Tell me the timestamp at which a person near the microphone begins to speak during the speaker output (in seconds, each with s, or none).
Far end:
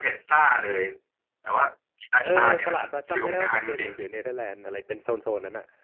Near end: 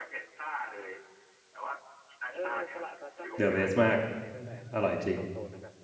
3.3 s